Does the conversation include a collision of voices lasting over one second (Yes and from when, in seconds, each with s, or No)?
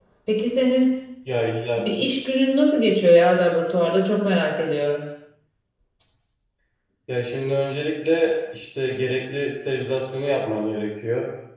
No